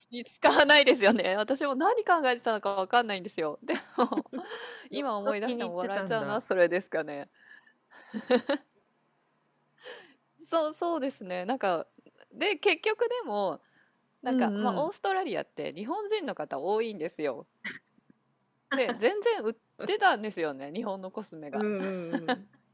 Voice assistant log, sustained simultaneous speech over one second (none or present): present